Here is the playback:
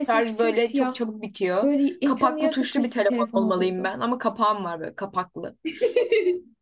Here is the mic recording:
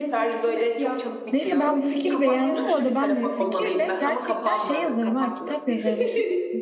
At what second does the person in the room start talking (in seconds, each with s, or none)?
1.3 s